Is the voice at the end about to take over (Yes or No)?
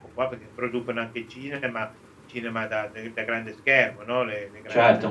Yes